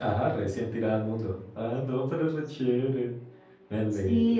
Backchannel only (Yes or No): No